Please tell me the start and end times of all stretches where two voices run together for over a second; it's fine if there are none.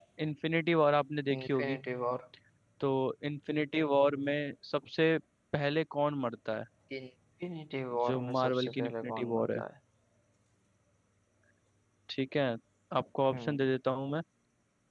8.1-9.6

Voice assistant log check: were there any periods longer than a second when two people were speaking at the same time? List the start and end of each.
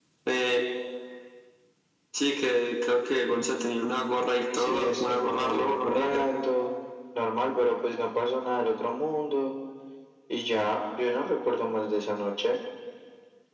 4.5-6.2

